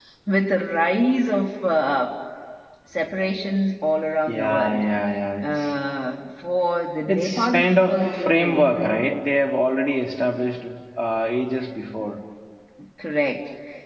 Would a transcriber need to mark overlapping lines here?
Yes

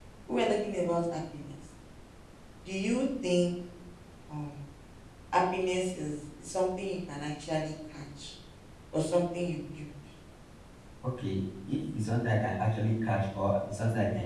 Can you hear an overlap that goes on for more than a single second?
No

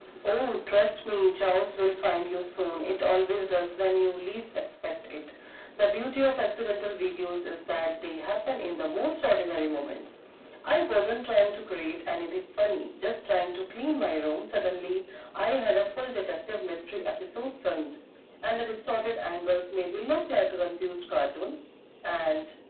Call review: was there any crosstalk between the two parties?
No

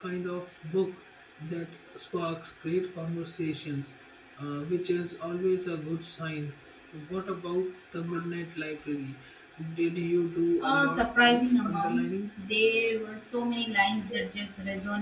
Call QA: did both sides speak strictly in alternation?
No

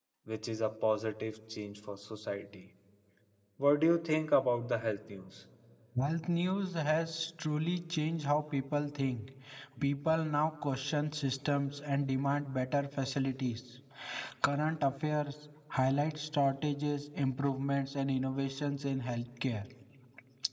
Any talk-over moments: No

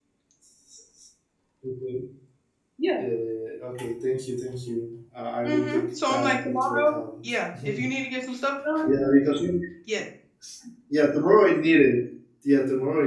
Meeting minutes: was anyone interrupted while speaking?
Yes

